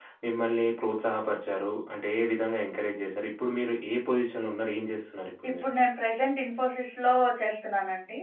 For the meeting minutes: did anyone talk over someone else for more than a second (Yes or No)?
No